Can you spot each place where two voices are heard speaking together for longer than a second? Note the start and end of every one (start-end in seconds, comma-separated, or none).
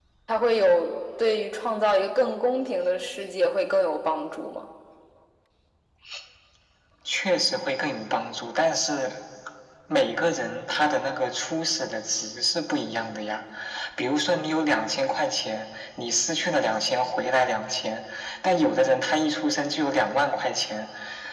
none